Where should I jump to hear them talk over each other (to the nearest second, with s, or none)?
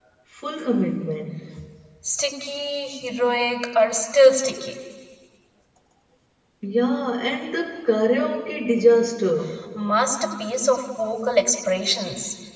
none